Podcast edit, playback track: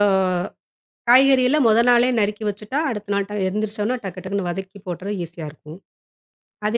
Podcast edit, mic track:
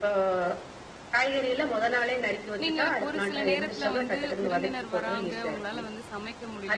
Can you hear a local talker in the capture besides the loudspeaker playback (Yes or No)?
Yes